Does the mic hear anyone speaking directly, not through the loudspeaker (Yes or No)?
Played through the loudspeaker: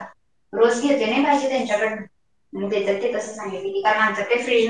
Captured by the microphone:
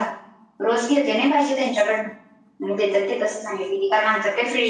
No